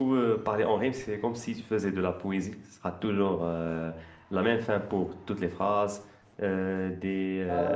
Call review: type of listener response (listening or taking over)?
listening